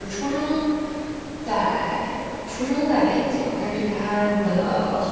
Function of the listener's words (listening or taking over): listening